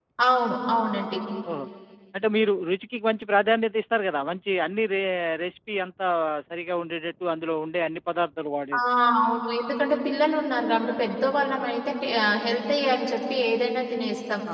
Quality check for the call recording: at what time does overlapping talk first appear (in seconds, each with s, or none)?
none